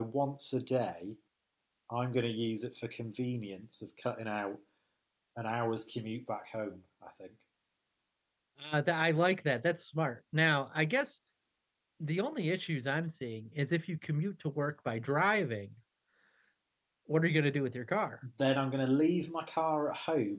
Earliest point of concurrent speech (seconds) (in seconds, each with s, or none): none